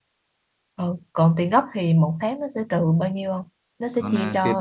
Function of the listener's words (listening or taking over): taking over